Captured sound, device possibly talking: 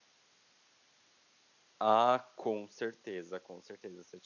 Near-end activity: present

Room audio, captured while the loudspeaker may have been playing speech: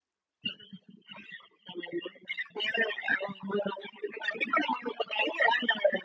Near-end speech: none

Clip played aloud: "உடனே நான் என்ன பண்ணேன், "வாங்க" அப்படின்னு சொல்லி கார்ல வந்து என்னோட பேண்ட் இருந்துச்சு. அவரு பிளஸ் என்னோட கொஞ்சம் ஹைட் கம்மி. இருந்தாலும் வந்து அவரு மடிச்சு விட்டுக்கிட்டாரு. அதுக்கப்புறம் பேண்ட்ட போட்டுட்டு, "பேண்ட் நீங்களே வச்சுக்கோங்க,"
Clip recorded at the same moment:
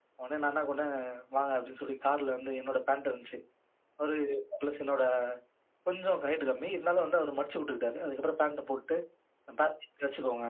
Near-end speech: none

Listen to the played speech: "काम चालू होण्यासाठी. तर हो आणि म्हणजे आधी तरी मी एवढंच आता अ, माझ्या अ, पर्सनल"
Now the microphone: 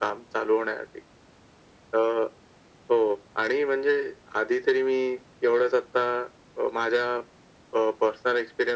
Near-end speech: none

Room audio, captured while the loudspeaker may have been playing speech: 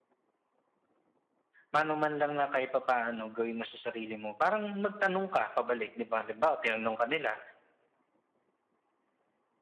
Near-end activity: present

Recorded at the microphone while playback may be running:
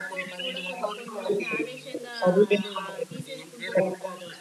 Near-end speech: present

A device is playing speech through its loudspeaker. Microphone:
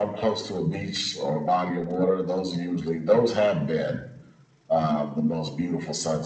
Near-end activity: none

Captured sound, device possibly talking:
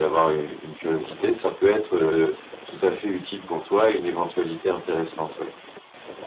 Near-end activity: none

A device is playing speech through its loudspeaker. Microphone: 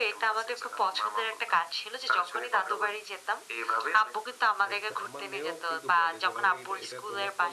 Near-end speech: present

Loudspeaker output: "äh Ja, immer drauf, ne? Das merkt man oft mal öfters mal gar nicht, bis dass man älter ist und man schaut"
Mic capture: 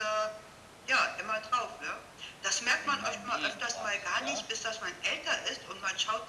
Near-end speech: present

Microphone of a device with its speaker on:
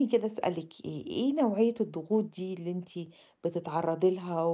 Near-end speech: present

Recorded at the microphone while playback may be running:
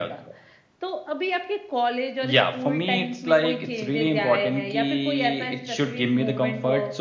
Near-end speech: none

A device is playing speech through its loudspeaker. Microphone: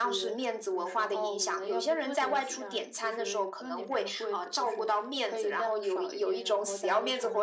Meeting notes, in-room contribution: none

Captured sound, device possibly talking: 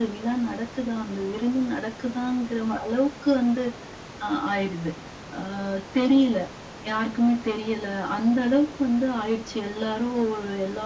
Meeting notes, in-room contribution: none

